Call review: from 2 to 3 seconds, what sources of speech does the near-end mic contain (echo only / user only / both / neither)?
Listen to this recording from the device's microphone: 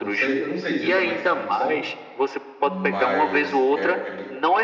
both